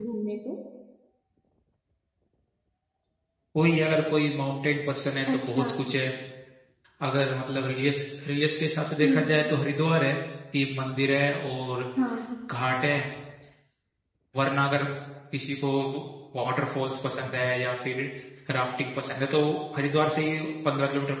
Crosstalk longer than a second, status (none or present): none